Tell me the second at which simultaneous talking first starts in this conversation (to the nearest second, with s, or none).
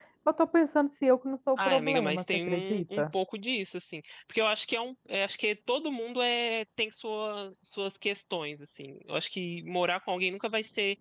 2 s